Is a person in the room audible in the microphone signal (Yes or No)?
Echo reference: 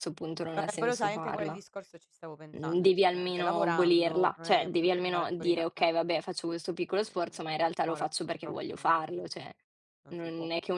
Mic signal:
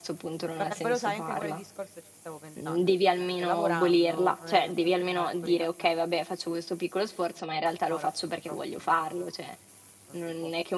No